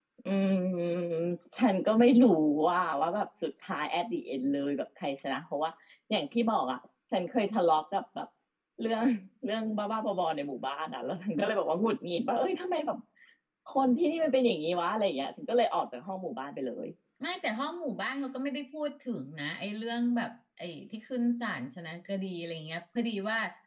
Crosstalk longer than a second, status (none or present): none